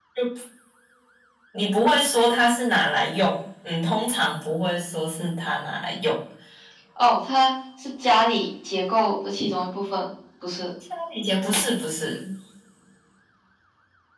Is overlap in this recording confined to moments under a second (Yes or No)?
Yes